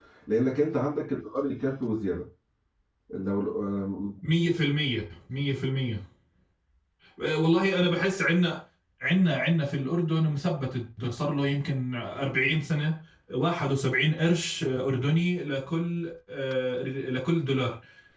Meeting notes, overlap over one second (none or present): none